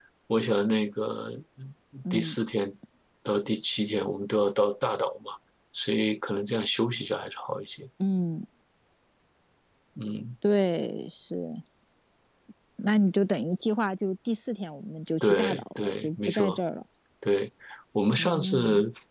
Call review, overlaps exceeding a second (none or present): present